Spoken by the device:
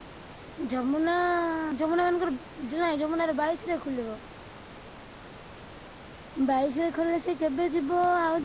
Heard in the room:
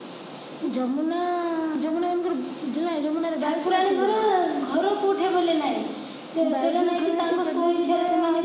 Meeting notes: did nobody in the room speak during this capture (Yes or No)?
No